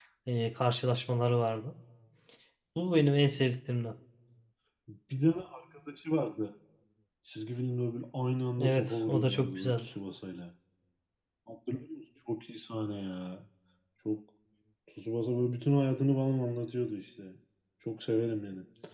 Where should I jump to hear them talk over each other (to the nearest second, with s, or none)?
9 s